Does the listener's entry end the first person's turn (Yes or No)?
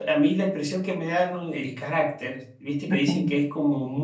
No